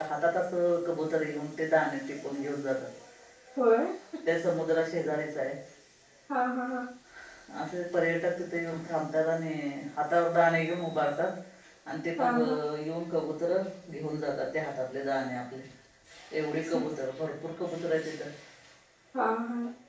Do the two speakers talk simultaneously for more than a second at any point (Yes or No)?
No